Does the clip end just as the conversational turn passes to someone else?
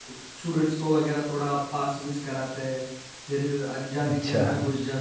No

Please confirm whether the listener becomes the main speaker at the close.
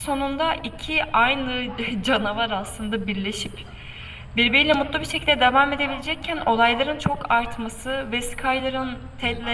No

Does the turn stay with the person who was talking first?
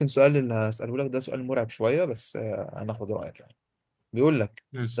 Yes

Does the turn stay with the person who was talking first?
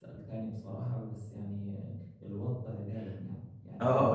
No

